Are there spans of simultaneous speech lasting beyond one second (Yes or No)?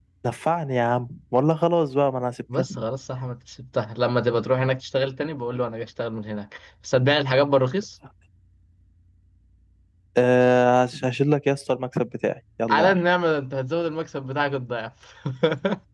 No